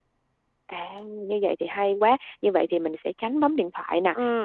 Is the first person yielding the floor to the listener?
No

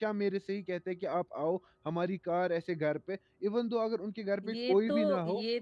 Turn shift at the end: Yes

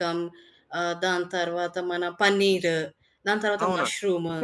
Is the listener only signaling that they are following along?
No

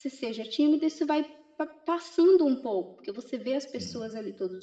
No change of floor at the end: Yes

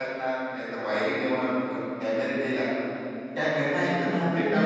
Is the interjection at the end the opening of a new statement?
Yes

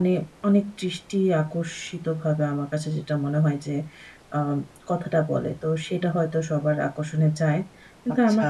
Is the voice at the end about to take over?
No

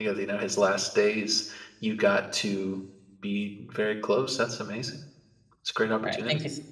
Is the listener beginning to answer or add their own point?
Yes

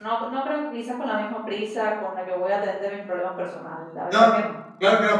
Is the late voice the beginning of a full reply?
Yes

